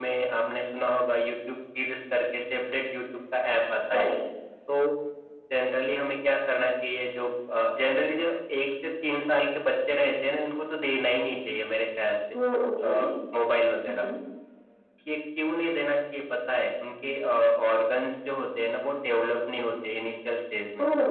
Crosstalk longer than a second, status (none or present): none